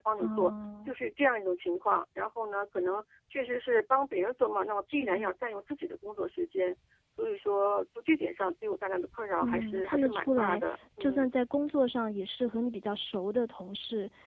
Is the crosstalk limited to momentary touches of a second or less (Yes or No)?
No